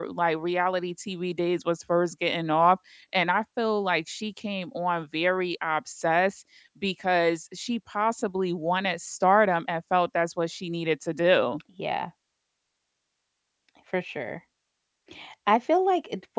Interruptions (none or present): none